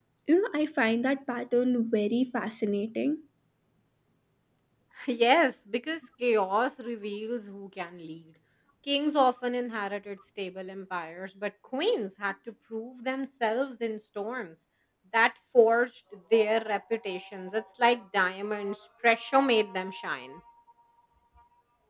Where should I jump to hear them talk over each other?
none

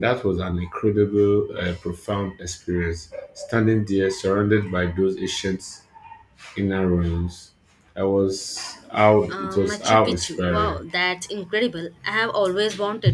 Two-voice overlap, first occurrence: 9.3 s

